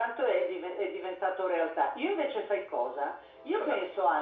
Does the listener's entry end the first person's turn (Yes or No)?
No